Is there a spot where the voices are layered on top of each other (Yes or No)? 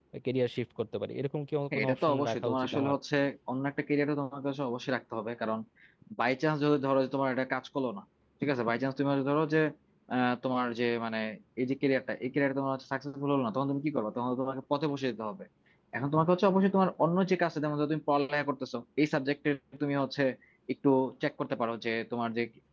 Yes